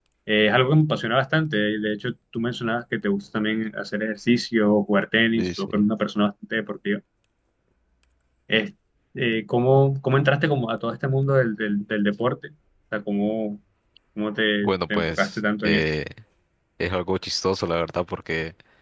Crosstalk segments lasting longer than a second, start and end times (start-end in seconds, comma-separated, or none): 14.6-15.8